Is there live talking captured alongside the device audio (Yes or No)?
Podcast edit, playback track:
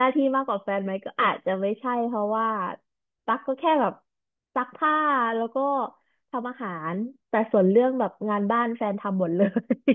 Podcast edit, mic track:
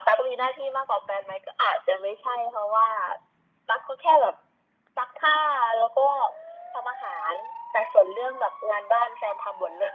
No